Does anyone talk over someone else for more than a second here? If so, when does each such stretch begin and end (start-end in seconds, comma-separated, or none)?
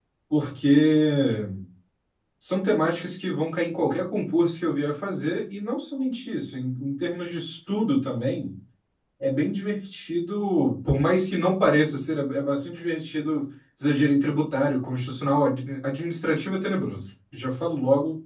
none